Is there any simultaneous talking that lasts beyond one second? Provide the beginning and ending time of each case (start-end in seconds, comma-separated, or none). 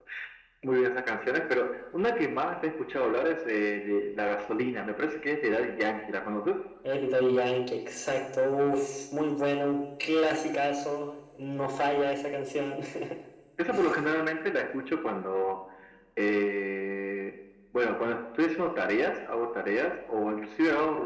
none